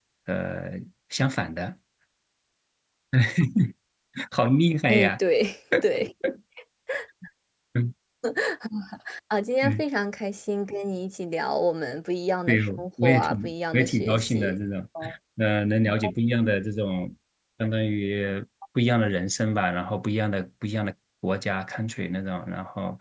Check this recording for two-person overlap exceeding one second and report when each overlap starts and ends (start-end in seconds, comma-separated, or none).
12.5-14.6